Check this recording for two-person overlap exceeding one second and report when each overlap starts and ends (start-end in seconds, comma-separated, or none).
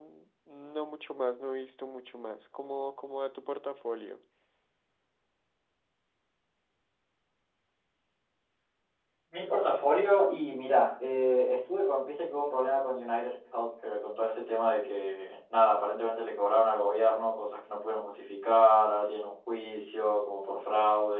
none